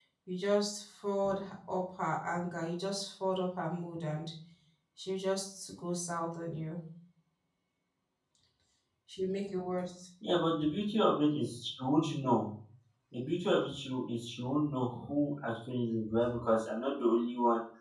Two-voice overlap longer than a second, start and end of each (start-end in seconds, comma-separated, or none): none